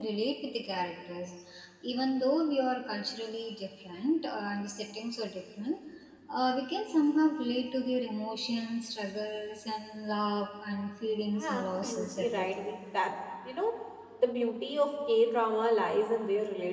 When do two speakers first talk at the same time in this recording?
11 s

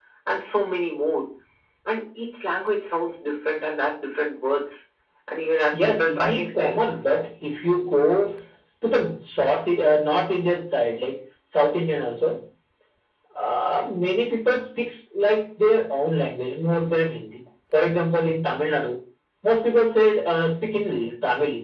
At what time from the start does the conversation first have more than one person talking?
6 s

